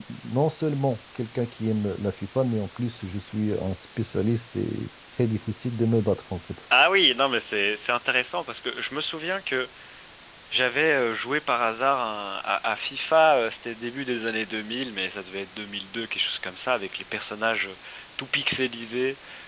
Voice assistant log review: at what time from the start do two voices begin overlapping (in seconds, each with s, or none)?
none